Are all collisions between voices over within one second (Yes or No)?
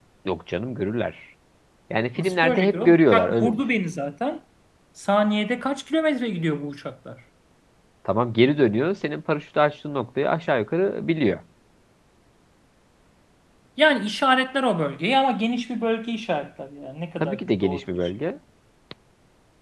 No